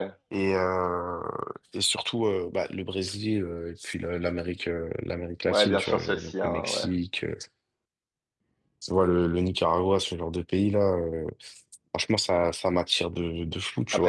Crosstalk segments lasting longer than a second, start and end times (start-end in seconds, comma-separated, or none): 5.5-6.8